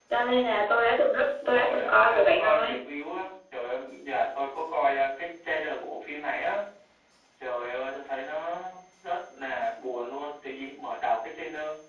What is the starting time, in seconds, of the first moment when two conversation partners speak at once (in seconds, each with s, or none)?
1.4 s